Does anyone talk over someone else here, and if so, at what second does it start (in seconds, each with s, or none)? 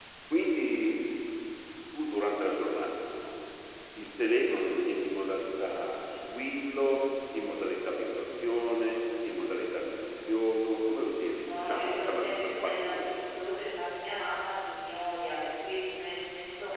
11.4 s